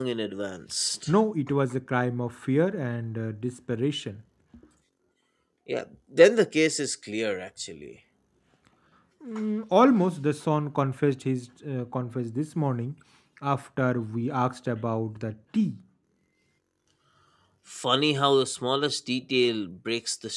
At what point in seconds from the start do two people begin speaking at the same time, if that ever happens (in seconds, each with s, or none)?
none